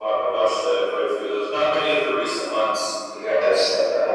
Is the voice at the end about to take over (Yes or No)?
Yes